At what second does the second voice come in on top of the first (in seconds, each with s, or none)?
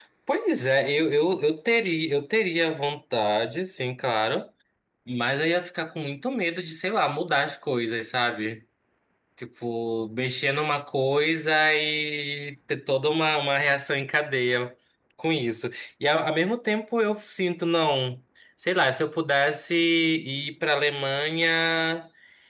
none